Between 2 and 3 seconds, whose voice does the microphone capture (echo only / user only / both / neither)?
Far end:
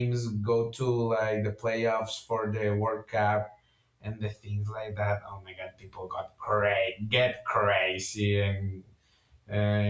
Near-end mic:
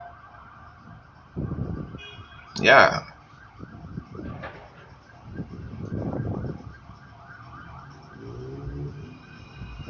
user only